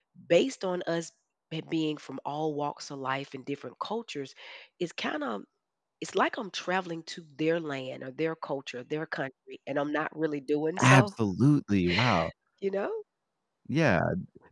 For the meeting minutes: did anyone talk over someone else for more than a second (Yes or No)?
No